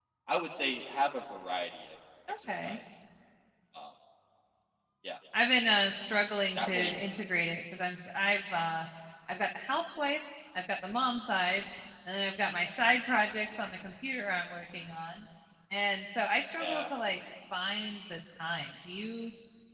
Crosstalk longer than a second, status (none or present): none